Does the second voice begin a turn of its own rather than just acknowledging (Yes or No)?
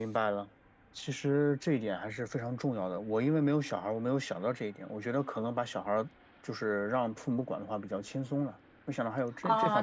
Yes